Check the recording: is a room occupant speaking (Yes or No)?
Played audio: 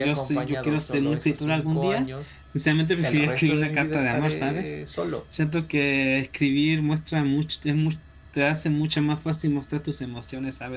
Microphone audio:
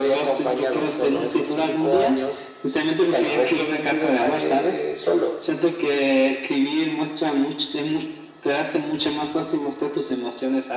No